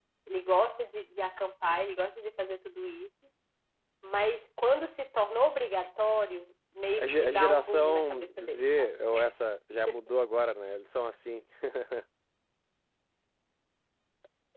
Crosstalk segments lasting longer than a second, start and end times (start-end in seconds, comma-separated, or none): 7.0-8.9